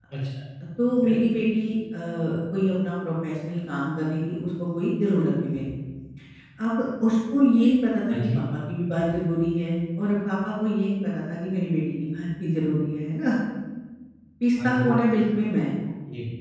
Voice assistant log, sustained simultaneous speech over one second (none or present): none